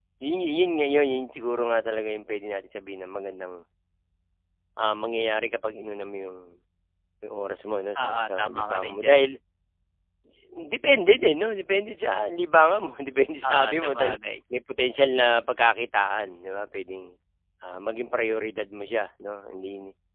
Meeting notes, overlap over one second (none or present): present